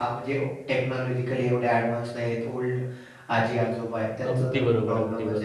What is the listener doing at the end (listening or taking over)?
taking over